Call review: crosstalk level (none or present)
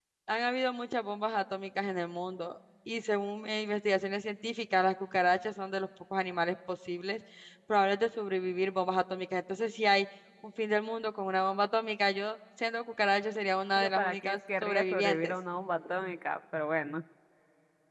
present